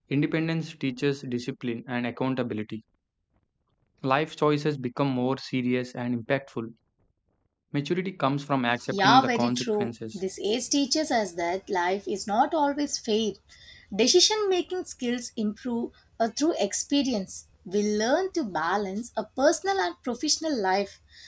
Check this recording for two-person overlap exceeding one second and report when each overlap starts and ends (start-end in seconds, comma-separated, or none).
8.9-10.2